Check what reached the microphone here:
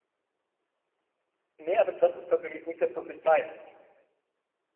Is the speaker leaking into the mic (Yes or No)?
No